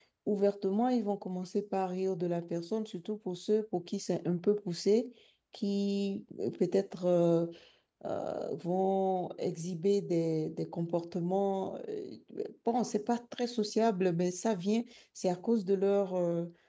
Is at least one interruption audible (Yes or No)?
No